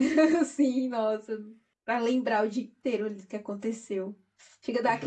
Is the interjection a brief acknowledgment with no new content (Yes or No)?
Yes